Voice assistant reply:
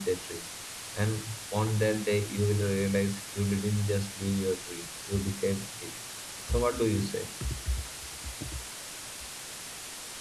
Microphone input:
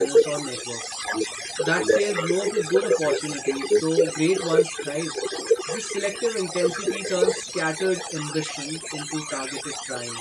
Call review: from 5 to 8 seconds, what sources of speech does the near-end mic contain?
both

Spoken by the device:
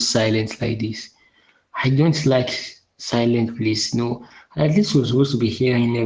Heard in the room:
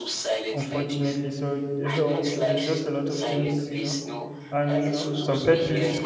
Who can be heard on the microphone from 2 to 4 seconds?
both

